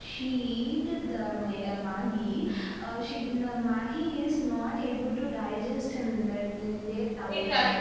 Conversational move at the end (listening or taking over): taking over